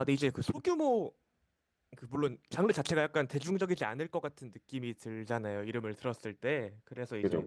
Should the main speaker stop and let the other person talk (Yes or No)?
No